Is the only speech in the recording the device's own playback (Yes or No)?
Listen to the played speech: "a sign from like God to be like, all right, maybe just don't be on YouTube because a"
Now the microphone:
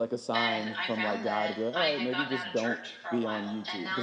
No